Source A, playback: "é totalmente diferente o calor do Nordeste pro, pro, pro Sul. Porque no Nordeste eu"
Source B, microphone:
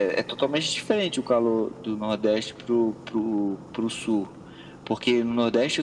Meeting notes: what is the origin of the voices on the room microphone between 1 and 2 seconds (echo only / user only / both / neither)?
echo only